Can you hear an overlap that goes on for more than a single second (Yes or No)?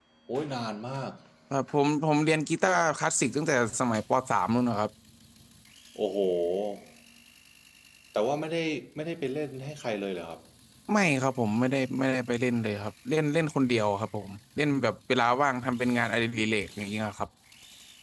No